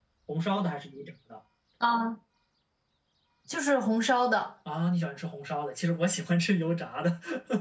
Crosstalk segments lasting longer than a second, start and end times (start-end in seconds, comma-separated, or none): none